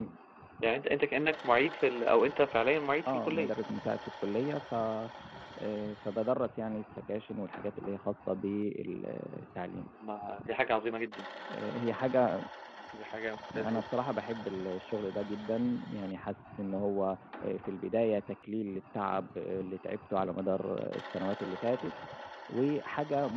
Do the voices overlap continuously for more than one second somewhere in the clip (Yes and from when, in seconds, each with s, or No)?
No